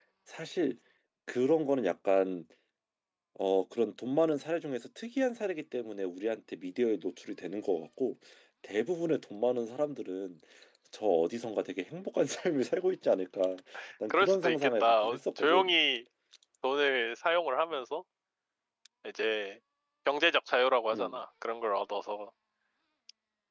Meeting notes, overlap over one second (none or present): present